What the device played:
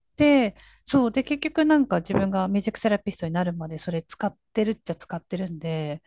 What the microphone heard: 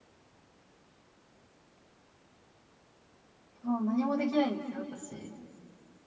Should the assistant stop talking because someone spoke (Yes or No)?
Yes